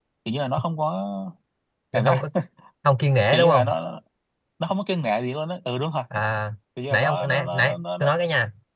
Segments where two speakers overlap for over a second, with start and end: 6.9-8.1

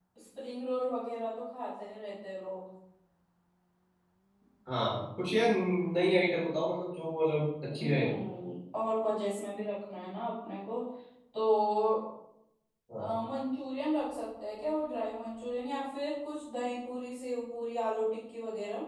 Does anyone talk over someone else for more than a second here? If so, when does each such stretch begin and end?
none

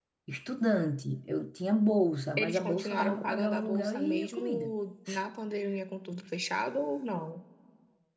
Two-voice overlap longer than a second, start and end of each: 2.4-4.7

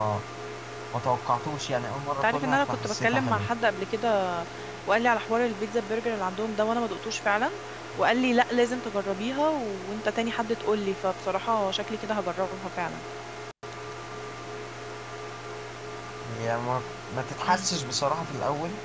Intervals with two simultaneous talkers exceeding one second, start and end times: 2.2-3.5

